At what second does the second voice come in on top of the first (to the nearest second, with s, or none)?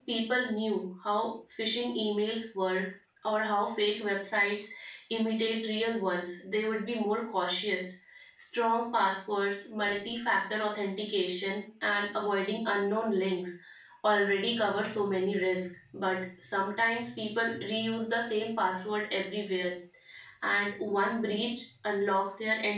none